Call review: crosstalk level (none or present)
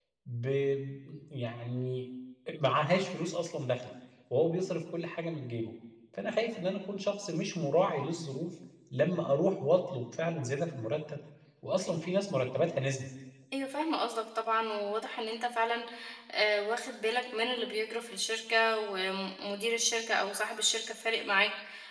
none